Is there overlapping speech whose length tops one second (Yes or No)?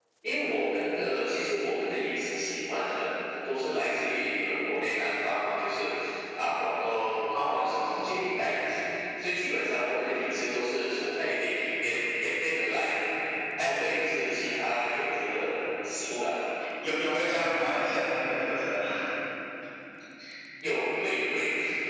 No